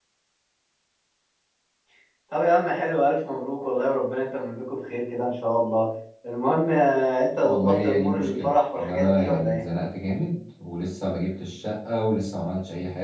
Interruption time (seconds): 7.4 s

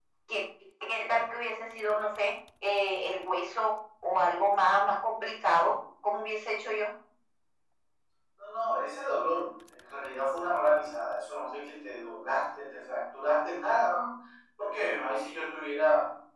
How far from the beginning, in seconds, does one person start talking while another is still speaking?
none

